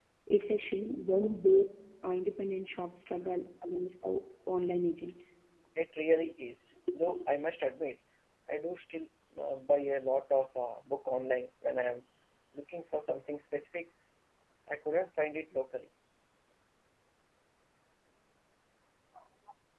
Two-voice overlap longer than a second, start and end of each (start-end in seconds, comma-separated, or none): none